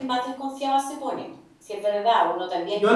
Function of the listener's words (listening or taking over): listening